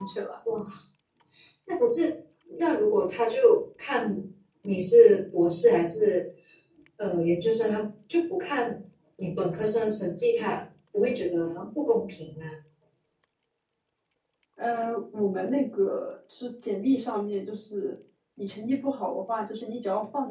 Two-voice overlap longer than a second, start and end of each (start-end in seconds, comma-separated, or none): none